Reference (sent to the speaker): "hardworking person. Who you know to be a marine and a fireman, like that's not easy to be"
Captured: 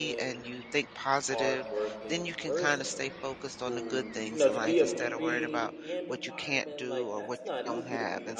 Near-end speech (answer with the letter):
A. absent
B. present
B